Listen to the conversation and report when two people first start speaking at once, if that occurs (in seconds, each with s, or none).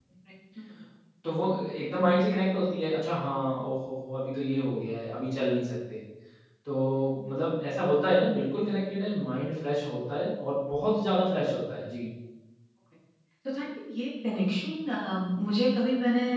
none